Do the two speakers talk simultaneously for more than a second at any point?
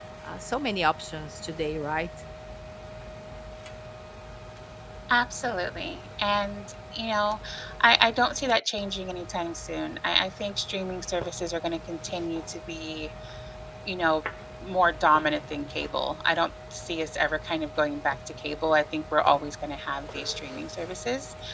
No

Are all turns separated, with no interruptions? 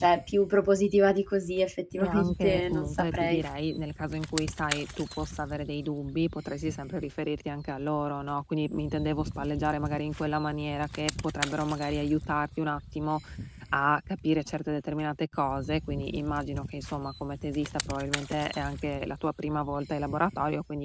No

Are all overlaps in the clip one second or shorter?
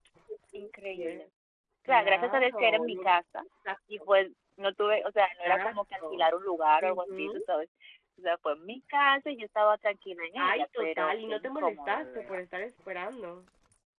No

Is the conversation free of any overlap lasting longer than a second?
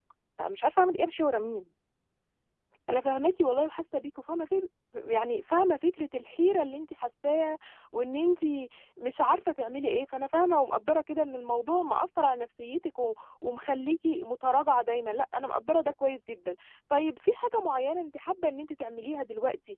Yes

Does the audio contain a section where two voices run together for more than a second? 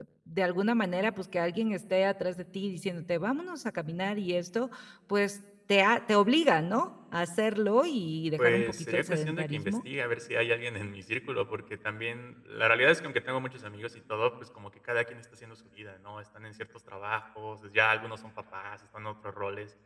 Yes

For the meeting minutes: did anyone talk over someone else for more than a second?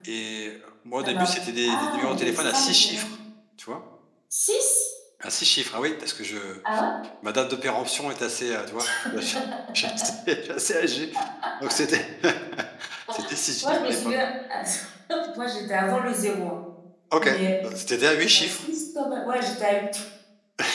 Yes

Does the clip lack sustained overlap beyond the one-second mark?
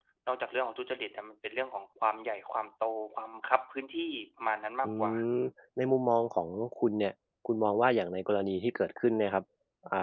Yes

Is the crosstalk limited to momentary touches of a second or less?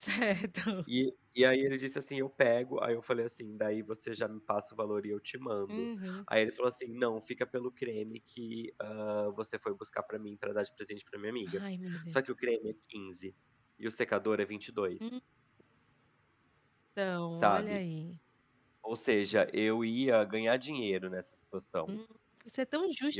Yes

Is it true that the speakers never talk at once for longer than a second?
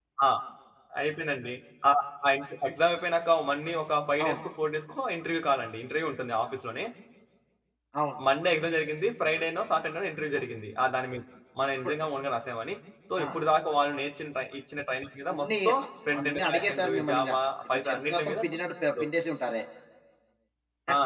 No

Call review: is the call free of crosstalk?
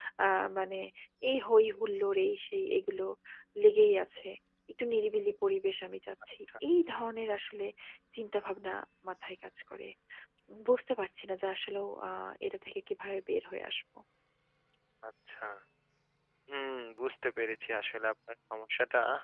Yes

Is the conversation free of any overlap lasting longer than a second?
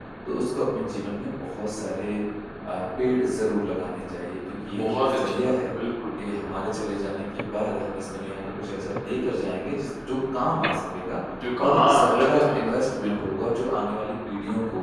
No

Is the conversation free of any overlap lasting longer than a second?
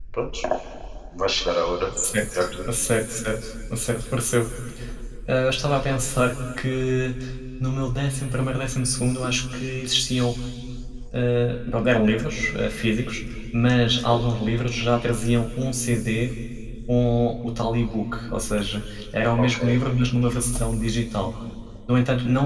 Yes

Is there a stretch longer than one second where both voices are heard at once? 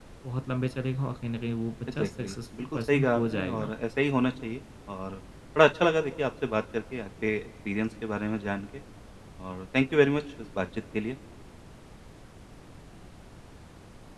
Yes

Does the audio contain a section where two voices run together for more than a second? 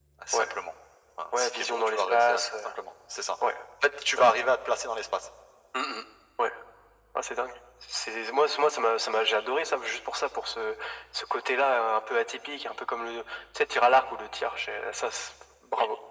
Yes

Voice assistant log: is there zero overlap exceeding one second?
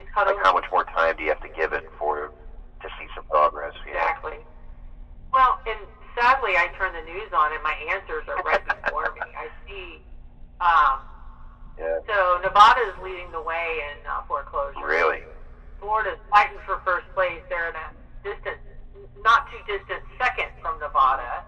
Yes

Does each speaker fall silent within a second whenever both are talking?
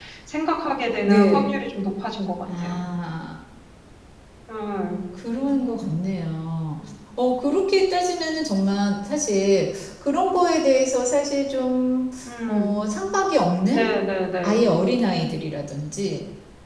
Yes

